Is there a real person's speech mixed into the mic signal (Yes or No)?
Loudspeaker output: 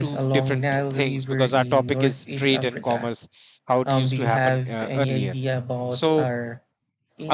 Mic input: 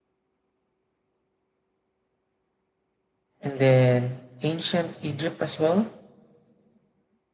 Yes